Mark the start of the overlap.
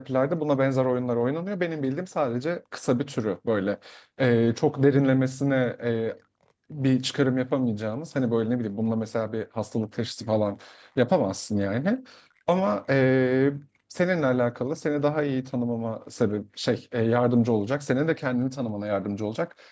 none

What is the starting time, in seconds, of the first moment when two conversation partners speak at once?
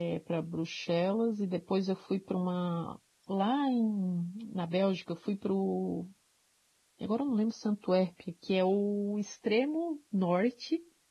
none

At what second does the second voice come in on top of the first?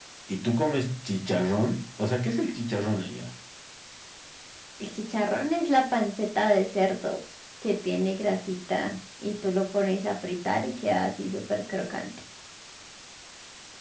none

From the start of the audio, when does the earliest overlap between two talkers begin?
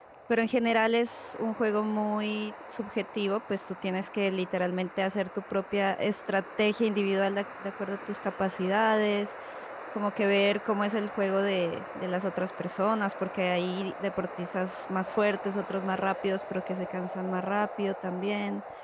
none

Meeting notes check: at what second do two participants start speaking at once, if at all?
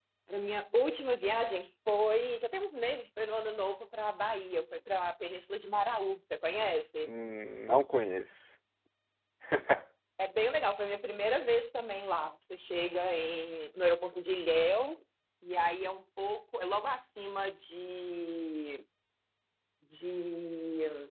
none

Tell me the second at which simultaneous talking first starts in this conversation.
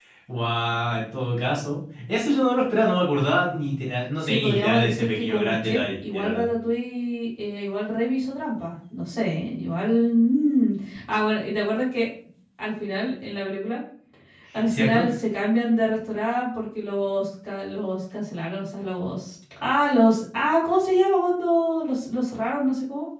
4.2 s

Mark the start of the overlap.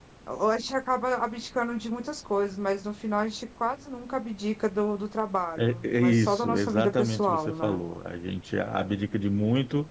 5.6 s

